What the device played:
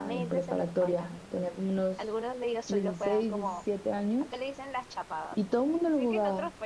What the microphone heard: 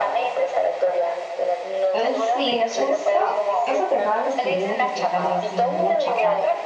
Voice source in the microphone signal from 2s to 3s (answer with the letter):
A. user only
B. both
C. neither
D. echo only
B